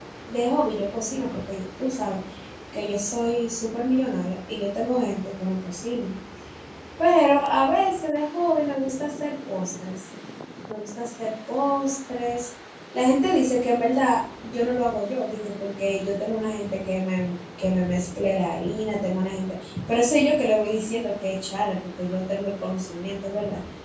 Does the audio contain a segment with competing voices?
No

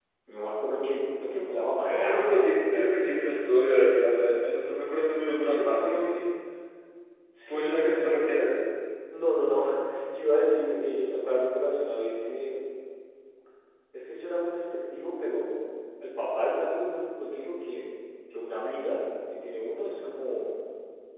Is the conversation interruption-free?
No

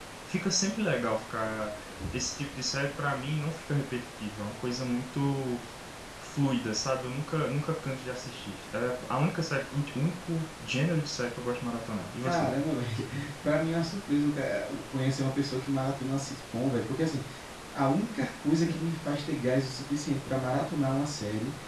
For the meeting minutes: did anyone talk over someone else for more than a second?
No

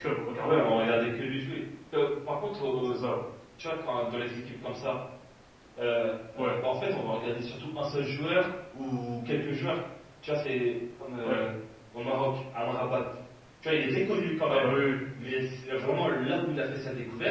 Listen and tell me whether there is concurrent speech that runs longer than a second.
No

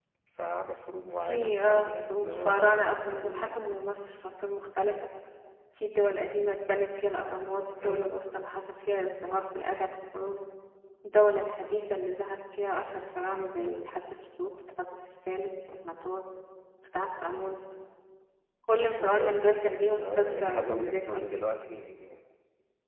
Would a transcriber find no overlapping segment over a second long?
No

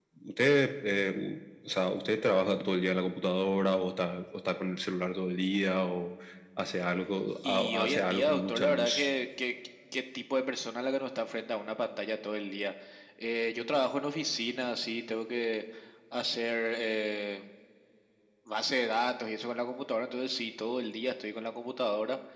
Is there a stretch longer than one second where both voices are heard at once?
Yes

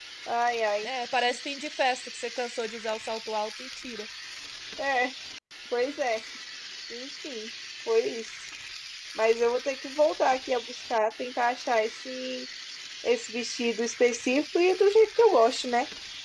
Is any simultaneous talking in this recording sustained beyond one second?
No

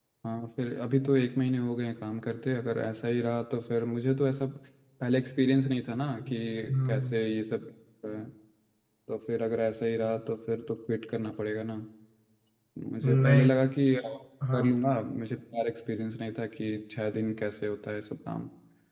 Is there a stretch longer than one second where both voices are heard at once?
No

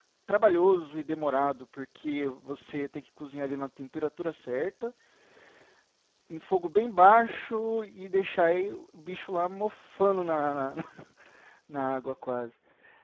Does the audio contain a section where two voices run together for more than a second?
No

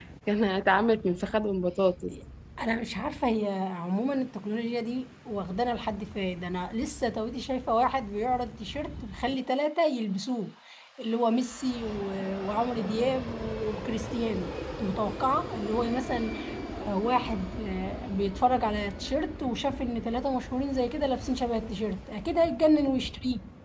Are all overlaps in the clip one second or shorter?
Yes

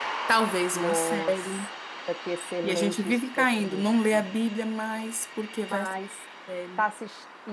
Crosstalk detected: Yes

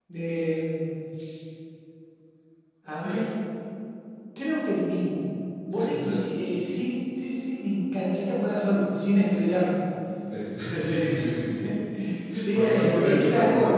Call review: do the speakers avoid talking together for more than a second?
No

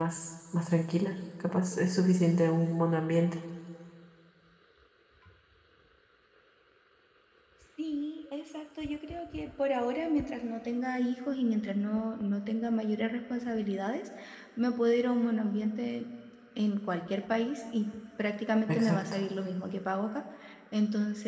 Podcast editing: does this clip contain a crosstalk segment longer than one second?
No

